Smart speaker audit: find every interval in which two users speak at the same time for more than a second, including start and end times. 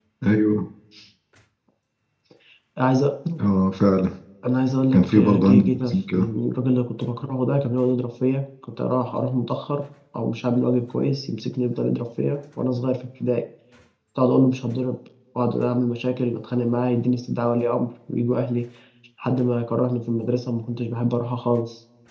4.9-6.3

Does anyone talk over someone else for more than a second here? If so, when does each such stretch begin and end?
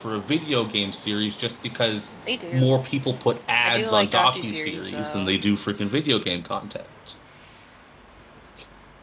3.6-5.3

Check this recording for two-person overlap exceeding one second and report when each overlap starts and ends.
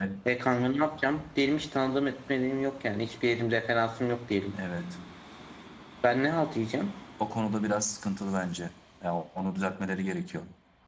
none

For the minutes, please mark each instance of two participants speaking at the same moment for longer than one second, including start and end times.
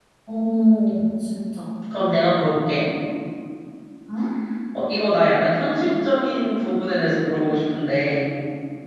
none

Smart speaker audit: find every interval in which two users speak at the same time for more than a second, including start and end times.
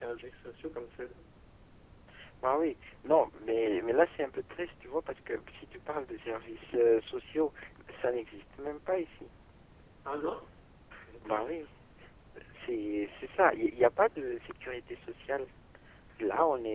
none

